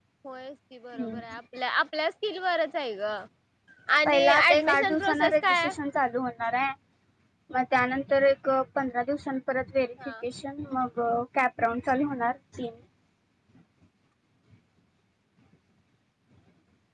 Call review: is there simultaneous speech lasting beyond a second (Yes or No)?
Yes